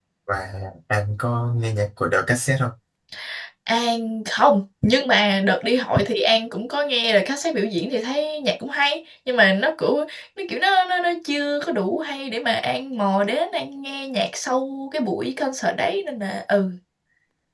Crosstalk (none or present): none